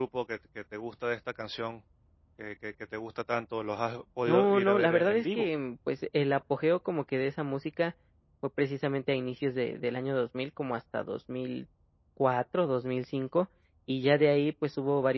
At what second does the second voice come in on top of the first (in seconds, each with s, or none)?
4.3 s